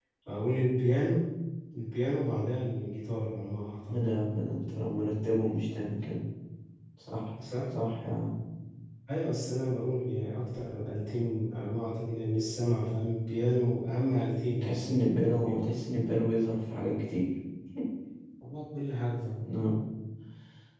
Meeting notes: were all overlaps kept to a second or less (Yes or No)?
Yes